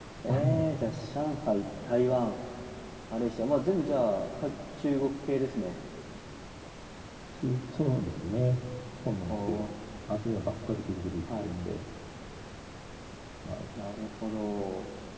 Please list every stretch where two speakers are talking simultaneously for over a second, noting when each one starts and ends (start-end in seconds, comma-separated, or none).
none